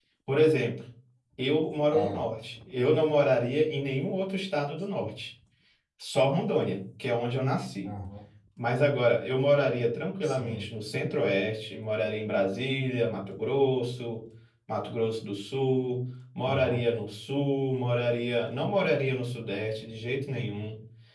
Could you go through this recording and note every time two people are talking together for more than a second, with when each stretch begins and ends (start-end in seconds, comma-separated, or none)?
none